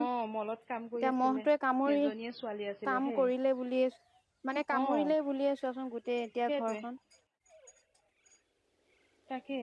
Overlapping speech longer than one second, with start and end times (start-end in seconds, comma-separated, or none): none